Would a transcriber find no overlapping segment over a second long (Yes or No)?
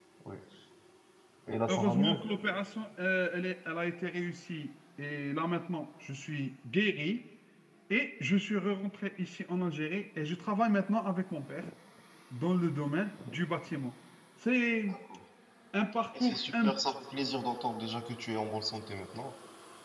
Yes